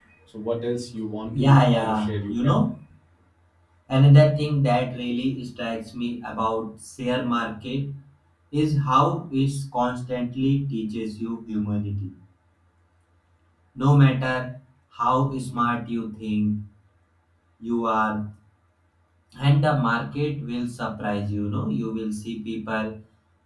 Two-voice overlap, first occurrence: 1.3 s

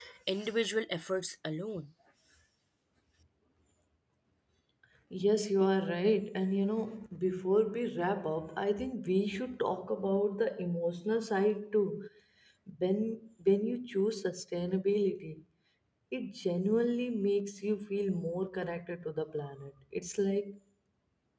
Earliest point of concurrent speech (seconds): none

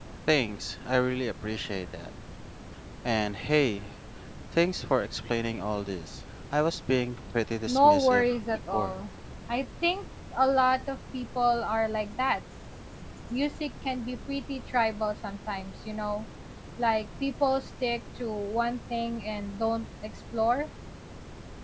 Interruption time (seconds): 7.7 s

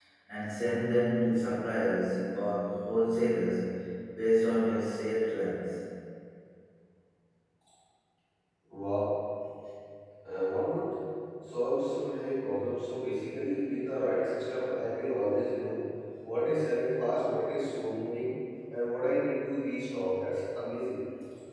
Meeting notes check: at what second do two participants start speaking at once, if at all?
none

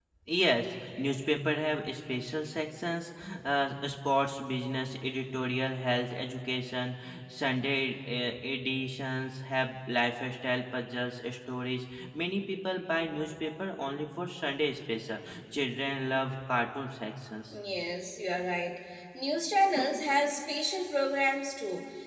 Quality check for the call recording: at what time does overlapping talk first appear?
none

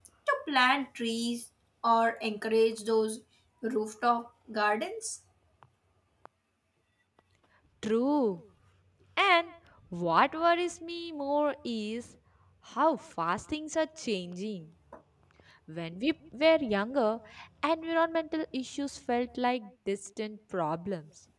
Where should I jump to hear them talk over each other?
none

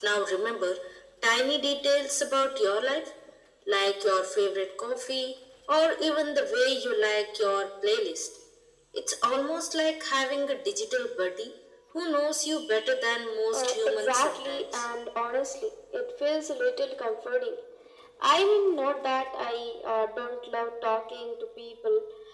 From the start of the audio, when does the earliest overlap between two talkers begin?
13.5 s

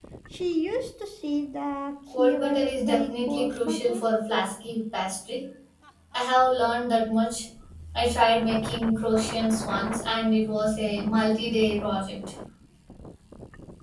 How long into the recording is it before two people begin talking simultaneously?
2.1 s

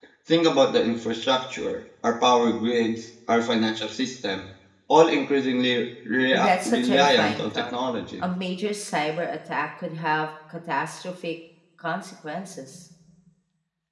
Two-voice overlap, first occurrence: 6.3 s

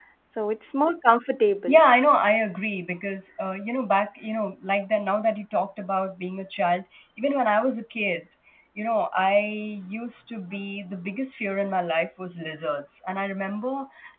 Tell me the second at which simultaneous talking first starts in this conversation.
none

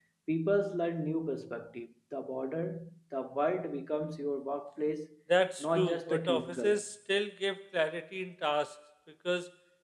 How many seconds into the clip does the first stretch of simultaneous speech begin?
5.6 s

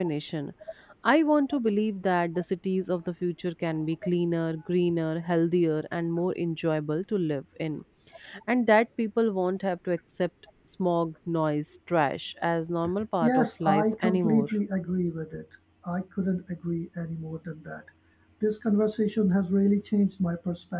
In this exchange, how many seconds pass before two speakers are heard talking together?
13.2 s

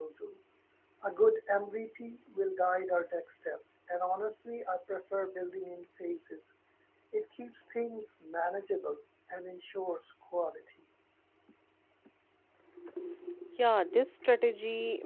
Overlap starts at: none

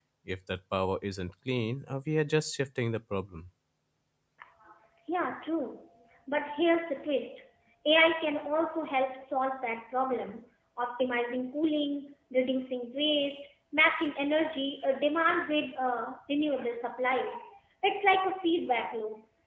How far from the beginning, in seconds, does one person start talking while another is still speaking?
none

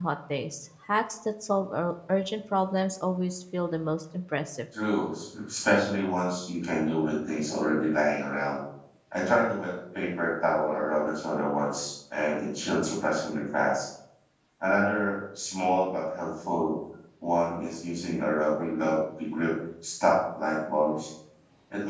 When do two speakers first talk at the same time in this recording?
none

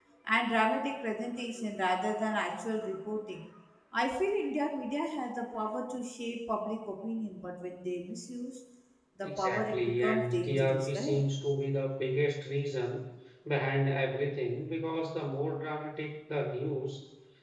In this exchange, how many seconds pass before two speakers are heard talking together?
9.2 s

